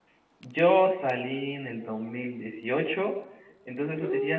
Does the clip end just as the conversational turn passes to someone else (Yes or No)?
No